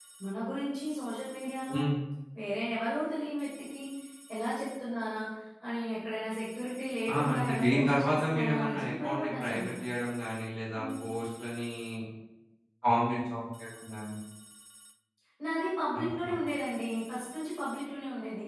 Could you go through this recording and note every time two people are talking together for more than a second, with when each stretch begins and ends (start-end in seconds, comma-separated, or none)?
7.1-9.8